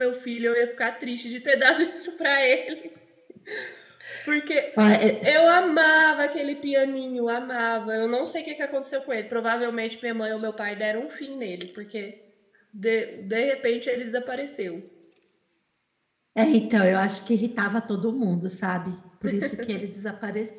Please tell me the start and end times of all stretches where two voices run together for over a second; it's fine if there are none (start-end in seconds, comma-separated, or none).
none